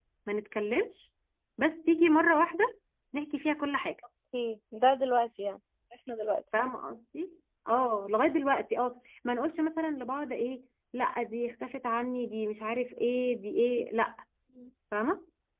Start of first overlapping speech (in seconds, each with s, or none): none